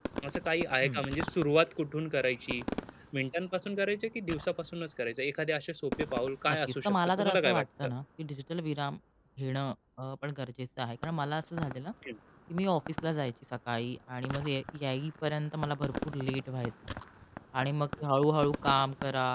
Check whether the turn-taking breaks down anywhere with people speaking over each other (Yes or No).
Yes